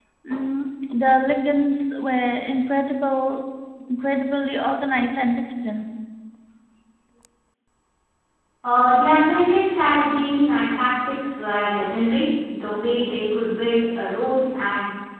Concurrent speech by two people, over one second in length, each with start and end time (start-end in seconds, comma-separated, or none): none